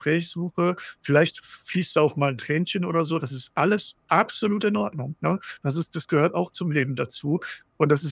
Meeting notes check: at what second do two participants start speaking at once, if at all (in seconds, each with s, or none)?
none